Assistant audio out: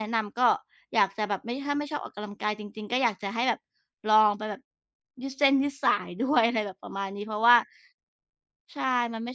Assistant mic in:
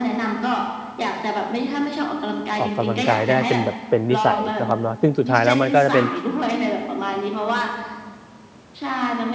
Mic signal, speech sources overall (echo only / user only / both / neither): both